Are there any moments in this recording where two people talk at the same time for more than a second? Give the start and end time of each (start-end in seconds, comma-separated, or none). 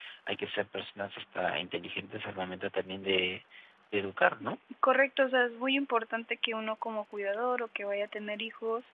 none